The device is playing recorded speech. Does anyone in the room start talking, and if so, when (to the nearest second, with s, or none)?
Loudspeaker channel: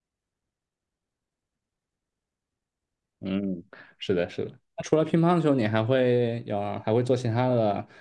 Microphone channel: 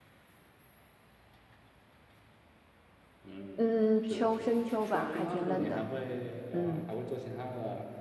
4 s